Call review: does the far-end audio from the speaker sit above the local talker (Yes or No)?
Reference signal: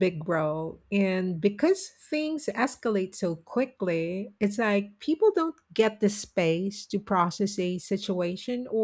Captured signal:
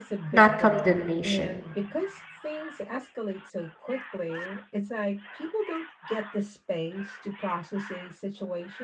No